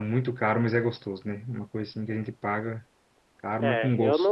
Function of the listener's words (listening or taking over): taking over